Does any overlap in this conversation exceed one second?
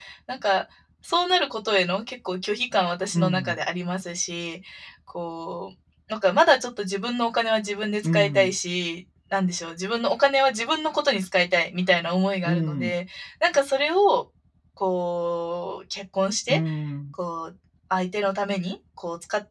No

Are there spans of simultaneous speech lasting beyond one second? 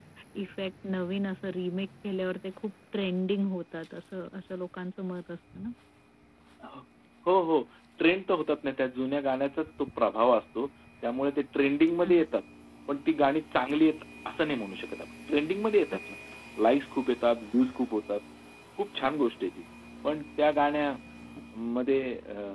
No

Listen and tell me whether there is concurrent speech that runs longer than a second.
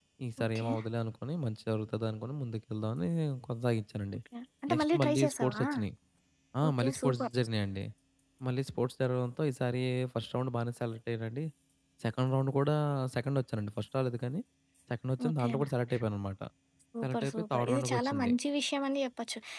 Yes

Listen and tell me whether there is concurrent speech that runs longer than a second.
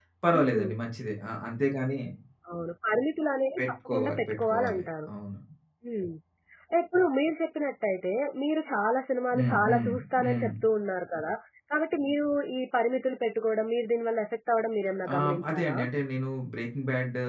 Yes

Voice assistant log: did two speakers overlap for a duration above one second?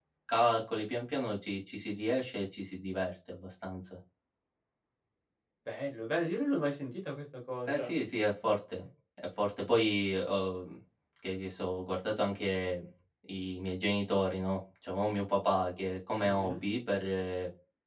No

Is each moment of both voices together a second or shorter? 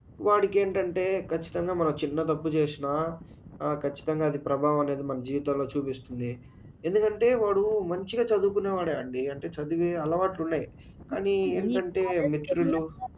No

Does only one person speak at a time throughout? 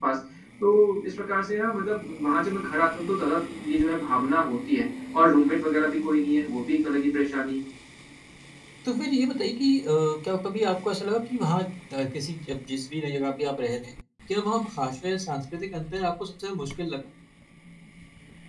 Yes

